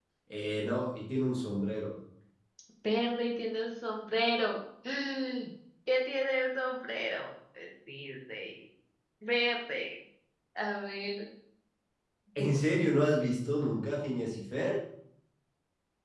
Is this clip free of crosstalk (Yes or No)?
Yes